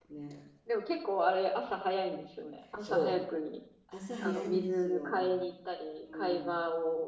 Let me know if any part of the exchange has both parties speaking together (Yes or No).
Yes